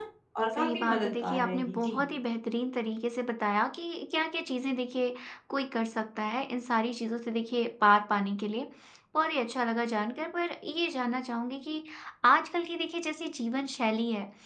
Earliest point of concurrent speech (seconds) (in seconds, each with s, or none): 0.5 s